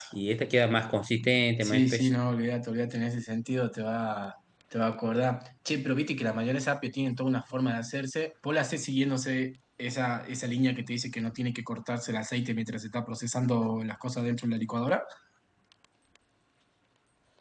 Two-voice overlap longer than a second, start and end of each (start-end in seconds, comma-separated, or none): none